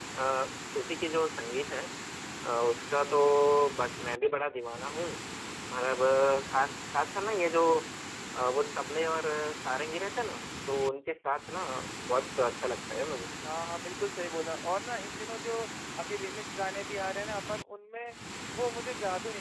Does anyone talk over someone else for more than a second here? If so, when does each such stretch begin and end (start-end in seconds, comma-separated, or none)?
none